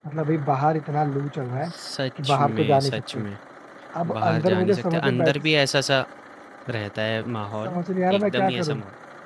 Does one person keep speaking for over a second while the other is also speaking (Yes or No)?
Yes